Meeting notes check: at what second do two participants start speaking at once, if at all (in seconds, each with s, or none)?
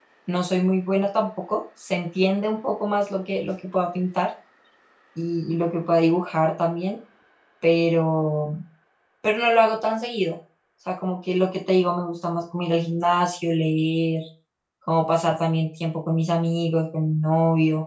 none